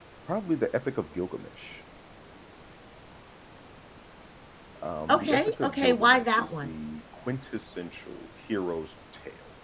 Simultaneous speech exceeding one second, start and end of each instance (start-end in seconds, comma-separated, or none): 5.1-6.7